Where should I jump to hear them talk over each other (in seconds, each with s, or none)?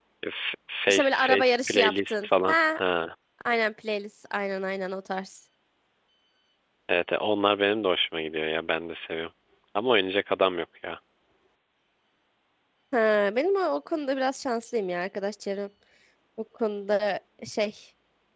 0.9 s